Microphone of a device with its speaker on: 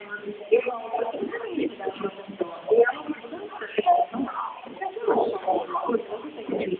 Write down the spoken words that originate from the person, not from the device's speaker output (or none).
acabou ali.